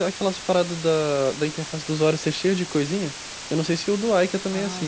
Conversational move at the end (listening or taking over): taking over